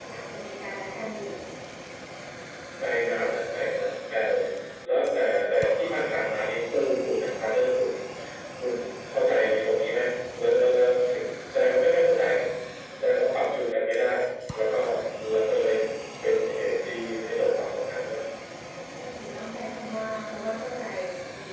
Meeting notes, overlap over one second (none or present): none